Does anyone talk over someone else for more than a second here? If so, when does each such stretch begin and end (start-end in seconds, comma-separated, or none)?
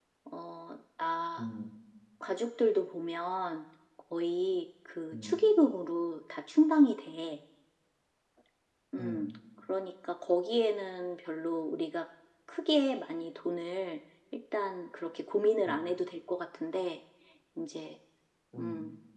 none